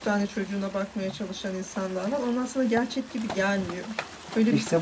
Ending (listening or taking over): taking over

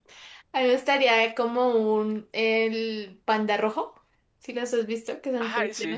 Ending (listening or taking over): taking over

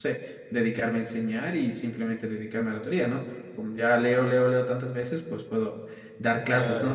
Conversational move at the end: listening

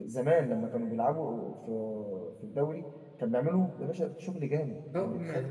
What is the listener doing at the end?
taking over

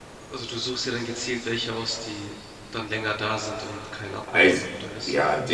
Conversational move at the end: taking over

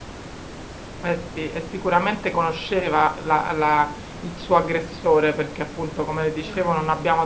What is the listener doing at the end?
listening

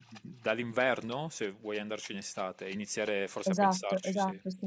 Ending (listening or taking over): taking over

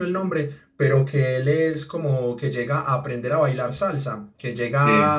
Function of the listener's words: listening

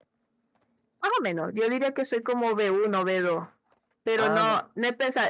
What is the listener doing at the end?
listening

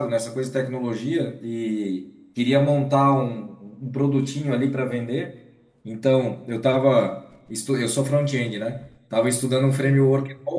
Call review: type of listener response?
listening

